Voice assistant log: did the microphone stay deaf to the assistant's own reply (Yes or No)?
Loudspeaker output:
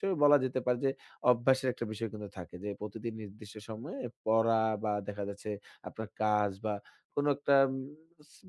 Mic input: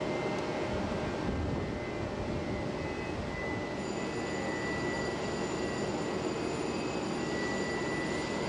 Yes